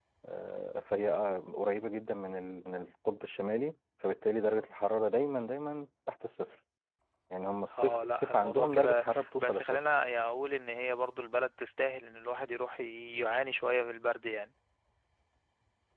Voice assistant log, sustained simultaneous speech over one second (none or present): present